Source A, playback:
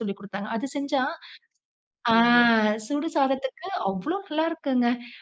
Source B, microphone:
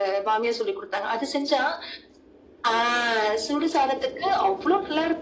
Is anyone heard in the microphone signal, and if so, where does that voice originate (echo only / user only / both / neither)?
echo only